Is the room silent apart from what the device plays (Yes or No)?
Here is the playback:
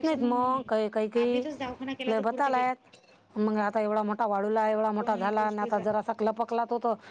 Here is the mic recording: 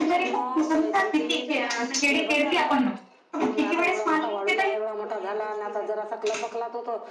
No